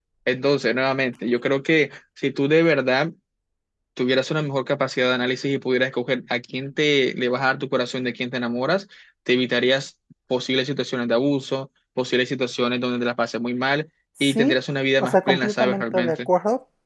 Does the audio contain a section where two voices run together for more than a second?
Yes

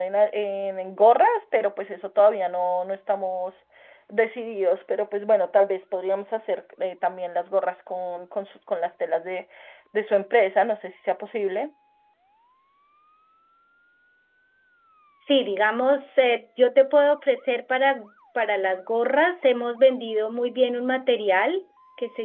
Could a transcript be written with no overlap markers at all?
Yes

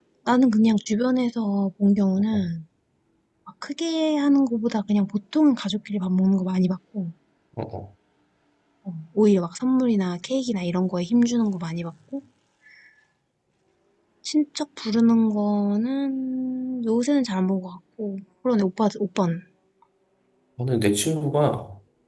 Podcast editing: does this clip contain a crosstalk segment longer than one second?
No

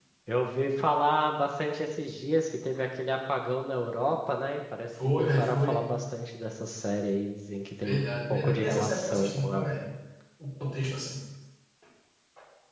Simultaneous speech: Yes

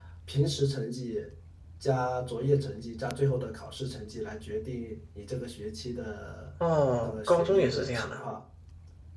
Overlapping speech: Yes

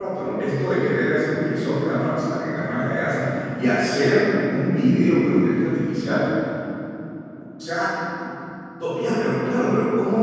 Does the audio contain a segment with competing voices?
No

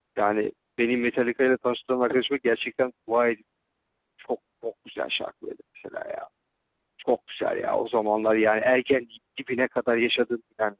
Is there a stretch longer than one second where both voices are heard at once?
No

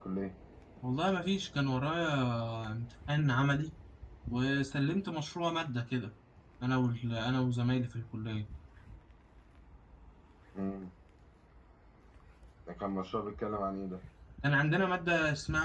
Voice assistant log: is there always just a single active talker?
Yes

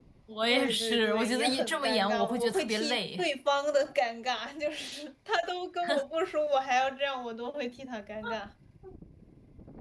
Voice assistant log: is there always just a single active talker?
No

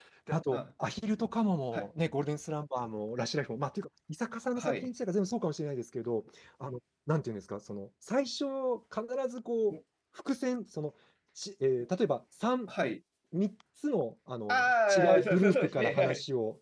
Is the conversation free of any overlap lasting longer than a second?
No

